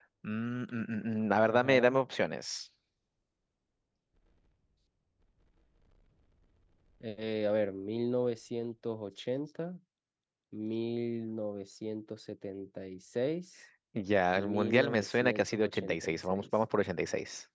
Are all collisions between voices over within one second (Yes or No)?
No